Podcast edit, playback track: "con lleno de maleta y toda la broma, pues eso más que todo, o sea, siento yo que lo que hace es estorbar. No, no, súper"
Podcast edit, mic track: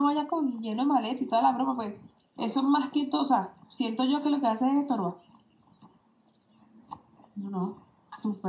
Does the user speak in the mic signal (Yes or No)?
No